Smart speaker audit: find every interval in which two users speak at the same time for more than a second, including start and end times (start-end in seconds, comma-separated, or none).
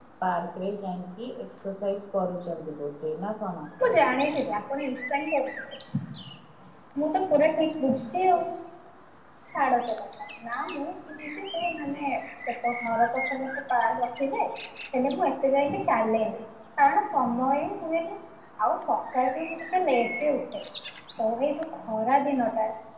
none